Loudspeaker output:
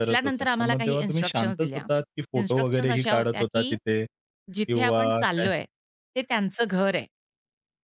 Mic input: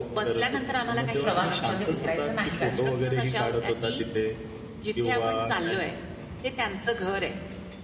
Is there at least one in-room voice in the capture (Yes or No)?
Yes